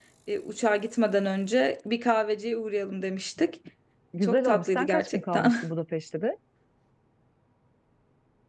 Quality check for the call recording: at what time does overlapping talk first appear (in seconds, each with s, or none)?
4.2 s